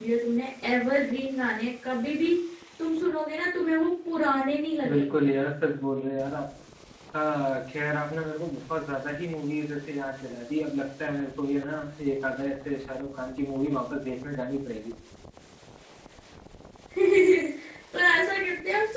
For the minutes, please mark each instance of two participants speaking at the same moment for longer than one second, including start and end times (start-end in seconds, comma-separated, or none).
none